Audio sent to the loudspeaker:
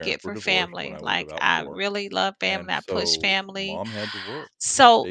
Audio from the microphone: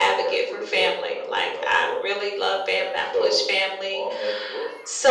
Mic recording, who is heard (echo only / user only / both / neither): echo only